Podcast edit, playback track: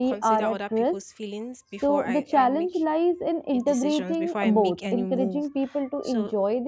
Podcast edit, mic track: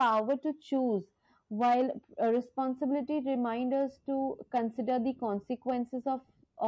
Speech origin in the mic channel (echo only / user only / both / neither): user only